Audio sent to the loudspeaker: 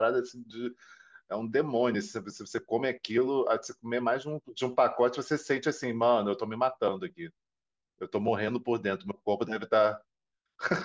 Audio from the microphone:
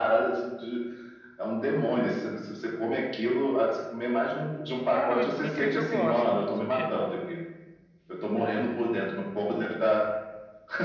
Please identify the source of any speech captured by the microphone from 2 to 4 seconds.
echo only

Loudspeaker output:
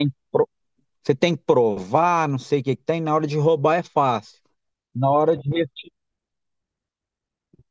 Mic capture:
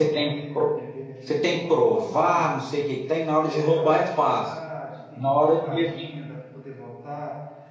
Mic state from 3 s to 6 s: both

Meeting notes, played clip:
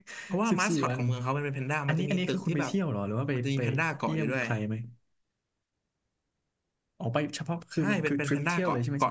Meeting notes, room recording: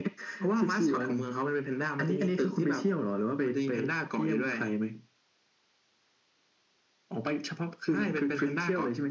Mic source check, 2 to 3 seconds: echo only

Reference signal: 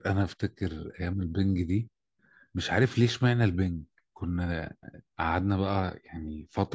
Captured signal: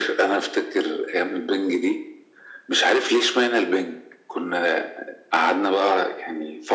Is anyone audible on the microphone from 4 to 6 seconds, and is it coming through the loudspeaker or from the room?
echo only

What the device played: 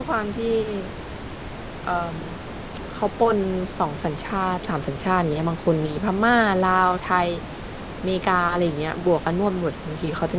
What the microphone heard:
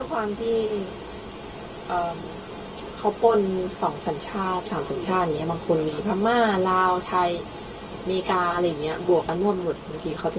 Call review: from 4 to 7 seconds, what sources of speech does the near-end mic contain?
both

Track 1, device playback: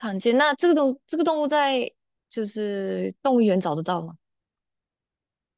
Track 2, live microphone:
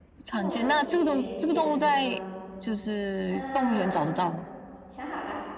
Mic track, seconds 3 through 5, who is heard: both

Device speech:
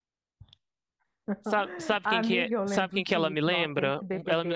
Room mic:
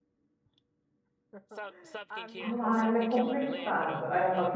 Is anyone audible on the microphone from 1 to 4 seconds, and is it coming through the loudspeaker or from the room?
both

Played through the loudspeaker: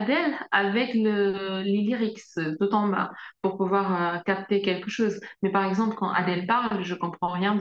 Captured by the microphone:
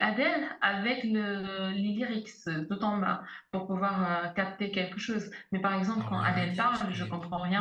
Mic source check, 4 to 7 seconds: both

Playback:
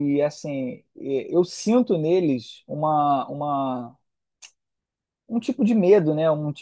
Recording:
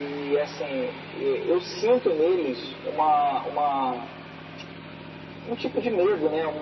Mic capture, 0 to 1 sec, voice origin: echo only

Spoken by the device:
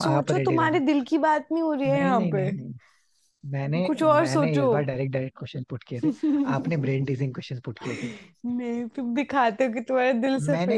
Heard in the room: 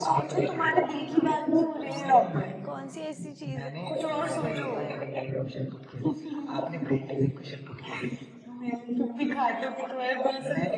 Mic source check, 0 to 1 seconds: echo only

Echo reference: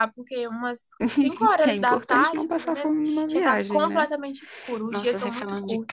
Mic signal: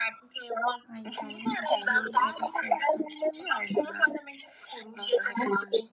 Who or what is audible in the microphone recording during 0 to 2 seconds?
both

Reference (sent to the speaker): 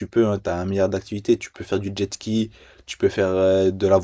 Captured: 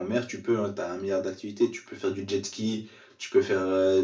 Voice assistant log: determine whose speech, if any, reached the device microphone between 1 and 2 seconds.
echo only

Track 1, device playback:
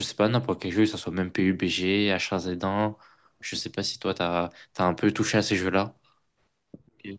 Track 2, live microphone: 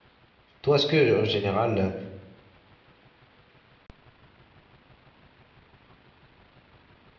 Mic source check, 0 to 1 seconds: user only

